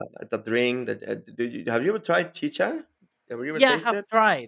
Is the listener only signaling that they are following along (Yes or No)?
No